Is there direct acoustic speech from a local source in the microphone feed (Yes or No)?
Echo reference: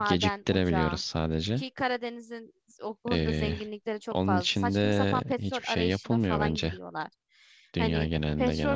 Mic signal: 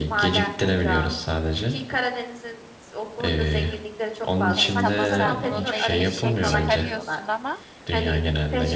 Yes